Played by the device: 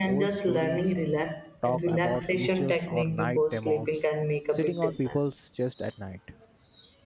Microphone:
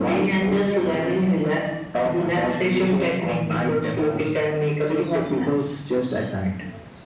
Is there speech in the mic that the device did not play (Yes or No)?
No